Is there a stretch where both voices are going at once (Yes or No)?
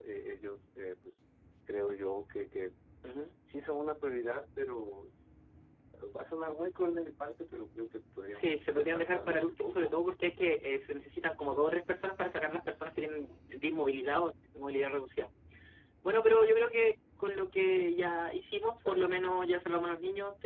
Yes